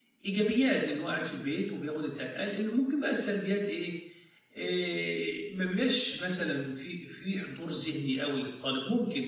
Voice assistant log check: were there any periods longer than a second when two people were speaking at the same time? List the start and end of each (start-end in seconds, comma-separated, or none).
none